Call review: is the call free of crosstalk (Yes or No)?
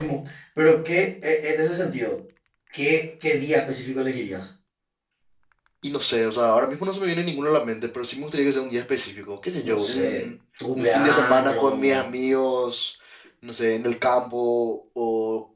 No